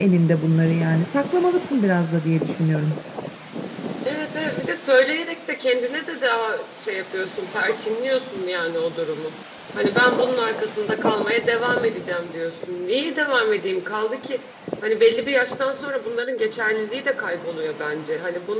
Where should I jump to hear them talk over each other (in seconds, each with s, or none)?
none